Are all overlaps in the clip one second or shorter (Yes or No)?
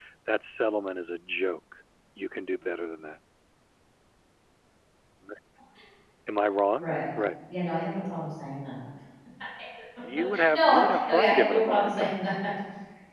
No